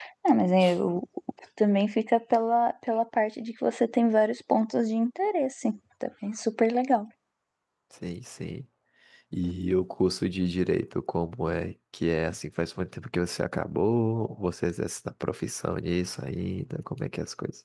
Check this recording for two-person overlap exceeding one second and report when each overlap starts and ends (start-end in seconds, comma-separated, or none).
none